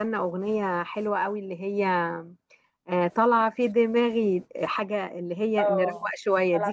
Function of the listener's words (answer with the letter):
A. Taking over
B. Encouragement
A